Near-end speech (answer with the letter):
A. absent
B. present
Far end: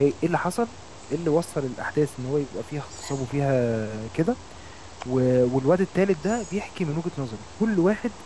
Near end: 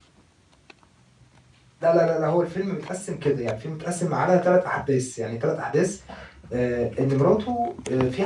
B